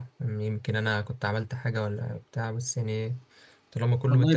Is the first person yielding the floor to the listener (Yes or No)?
Yes